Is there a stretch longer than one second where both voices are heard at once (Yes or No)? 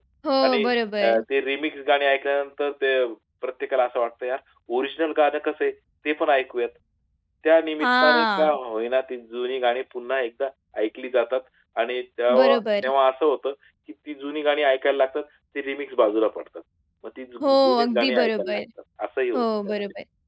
Yes